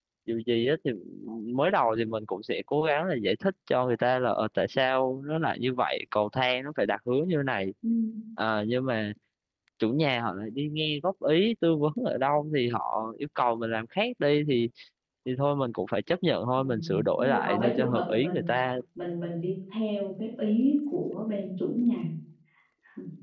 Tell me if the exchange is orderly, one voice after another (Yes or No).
No